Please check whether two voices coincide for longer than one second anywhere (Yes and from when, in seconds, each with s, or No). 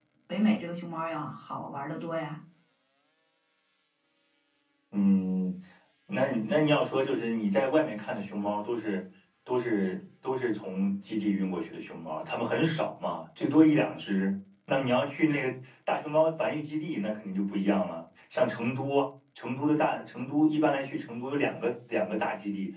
No